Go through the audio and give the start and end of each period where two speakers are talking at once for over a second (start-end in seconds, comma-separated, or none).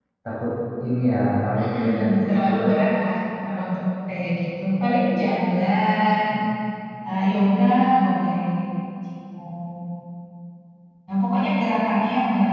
1.6-2.8